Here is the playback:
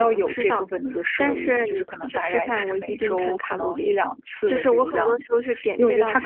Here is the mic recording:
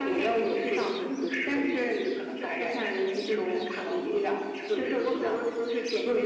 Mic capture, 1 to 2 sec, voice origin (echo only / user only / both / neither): echo only